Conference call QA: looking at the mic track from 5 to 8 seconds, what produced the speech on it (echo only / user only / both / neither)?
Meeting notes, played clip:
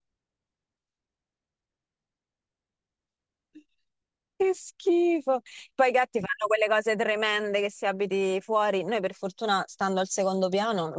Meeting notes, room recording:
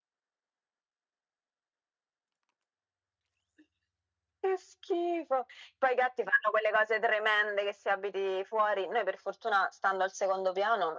echo only